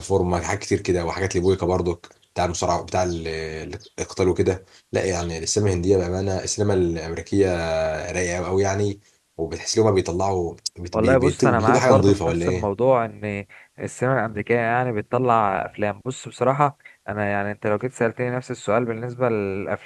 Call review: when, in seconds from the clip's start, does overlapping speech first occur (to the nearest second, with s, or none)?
11 s